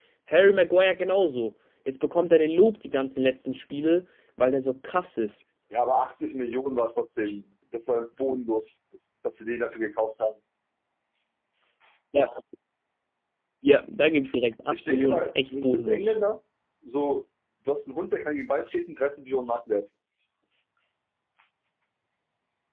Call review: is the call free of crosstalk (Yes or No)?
No